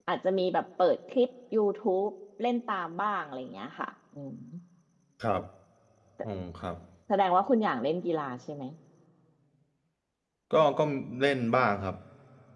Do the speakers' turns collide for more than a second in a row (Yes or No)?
No